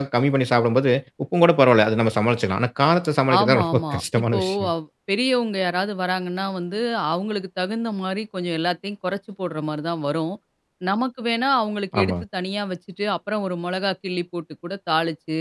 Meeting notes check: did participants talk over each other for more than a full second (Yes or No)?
Yes